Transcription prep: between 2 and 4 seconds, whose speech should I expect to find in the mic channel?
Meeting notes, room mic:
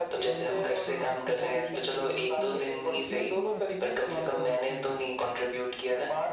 both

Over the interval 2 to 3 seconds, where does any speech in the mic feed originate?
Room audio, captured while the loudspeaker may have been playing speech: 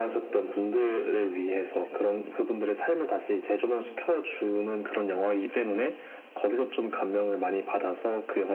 echo only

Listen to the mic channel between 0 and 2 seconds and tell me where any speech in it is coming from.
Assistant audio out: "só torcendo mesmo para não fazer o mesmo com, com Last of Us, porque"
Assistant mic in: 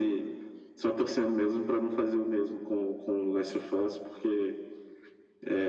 echo only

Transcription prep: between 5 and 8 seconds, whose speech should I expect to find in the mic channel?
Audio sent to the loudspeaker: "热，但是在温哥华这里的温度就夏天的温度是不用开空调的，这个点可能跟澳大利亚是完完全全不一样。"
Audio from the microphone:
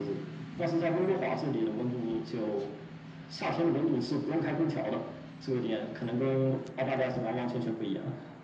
echo only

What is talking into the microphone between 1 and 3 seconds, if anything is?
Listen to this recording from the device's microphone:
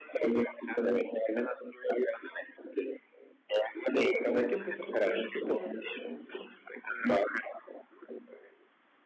echo only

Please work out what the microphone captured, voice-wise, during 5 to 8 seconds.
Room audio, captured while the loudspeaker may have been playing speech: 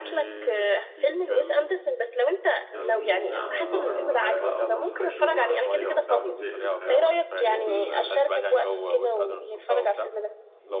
both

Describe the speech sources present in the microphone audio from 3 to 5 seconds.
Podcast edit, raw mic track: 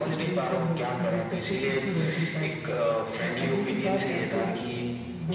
echo only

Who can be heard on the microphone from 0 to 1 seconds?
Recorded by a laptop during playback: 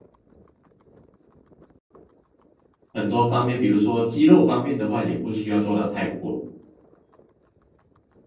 neither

